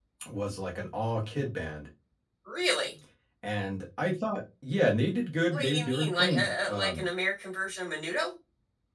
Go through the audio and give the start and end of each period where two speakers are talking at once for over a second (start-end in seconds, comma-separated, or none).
5.5-7.0